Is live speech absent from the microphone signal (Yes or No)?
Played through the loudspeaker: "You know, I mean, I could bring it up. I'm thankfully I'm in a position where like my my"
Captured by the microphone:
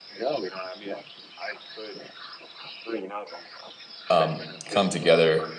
No